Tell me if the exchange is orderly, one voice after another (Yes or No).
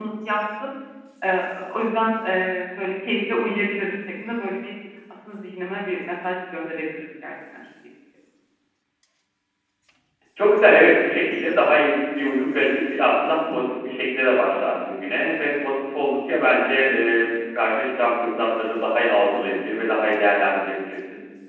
Yes